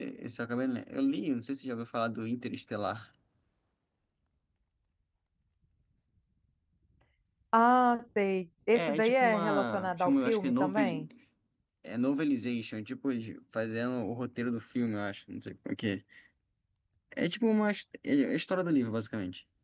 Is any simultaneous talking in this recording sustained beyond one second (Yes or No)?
Yes